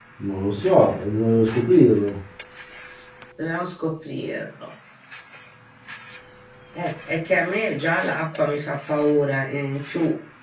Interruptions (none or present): none